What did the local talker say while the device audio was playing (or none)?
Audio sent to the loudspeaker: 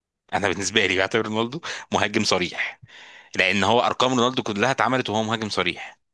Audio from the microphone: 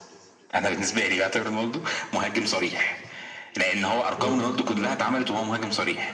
مم.